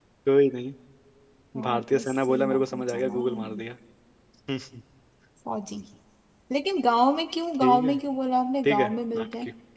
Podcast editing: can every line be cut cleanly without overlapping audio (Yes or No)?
No